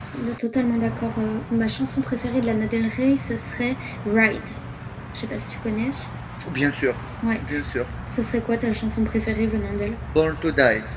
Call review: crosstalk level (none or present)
none